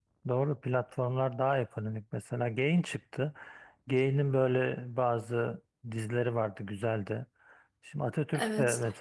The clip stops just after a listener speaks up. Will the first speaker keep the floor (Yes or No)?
Yes